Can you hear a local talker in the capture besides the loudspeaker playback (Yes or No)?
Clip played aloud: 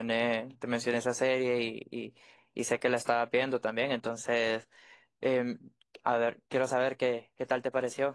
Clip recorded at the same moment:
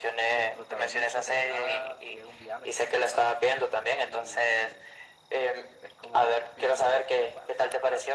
Yes